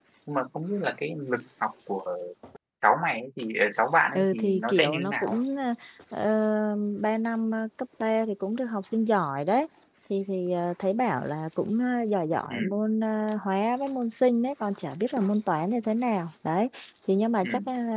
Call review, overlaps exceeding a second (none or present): present